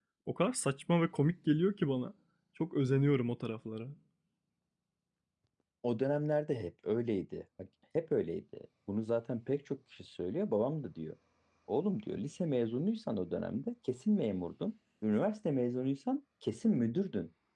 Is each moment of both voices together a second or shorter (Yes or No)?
Yes